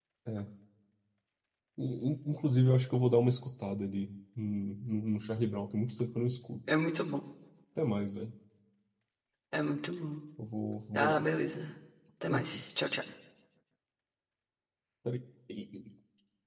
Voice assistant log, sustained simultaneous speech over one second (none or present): none